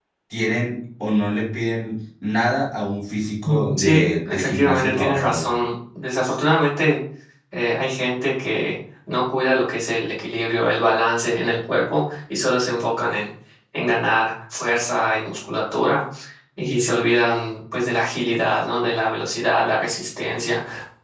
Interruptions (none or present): present